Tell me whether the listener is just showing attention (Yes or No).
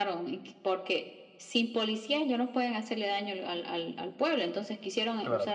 Yes